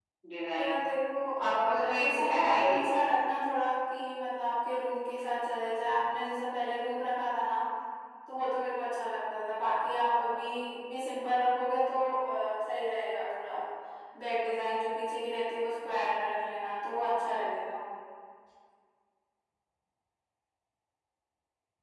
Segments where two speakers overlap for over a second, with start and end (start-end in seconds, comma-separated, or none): 1.4-2.9